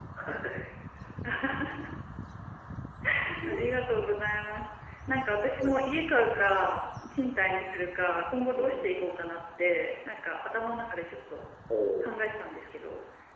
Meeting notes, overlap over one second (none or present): none